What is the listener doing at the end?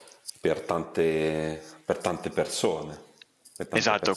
taking over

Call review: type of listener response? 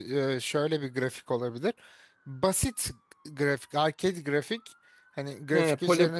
taking over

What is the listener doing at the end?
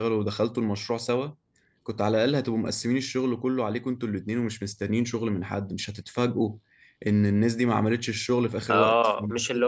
taking over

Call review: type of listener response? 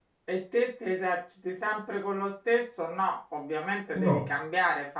listening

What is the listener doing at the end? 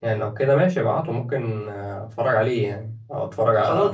taking over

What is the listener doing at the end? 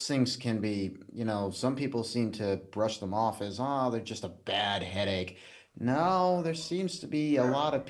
listening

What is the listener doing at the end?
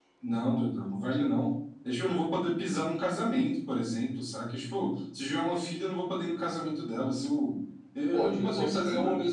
taking over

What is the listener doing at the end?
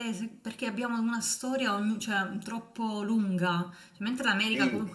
listening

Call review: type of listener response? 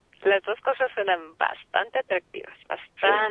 taking over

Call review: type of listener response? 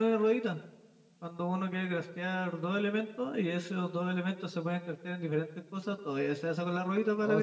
taking over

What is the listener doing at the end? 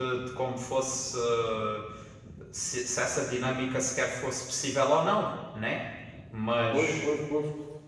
taking over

